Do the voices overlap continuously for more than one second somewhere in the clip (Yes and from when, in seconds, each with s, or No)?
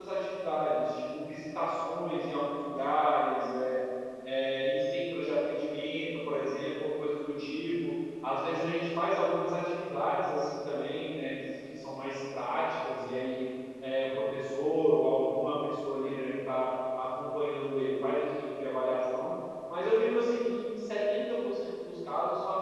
No